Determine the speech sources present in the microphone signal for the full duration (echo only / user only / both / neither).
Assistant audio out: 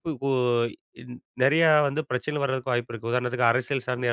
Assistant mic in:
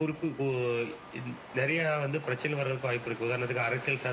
echo only